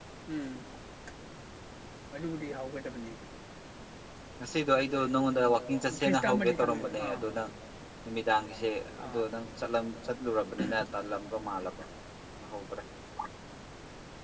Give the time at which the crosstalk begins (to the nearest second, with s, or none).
6 s